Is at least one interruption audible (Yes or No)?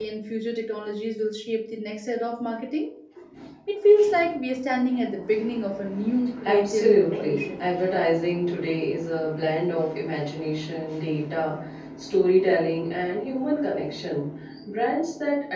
Yes